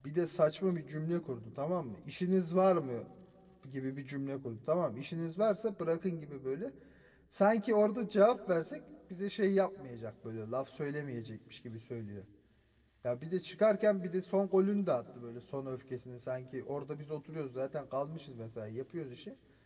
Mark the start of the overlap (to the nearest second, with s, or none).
none